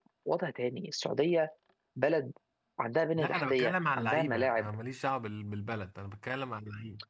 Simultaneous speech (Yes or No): Yes